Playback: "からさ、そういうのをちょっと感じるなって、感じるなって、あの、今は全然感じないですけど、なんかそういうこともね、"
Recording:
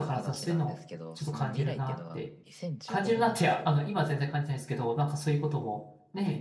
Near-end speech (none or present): present